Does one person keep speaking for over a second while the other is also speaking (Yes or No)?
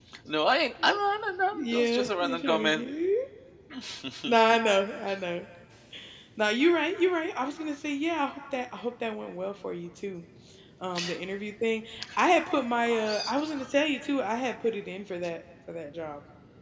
Yes